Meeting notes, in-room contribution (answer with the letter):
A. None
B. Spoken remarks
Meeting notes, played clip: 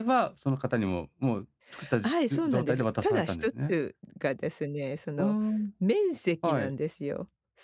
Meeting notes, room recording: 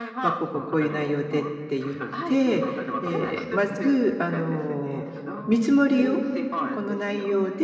B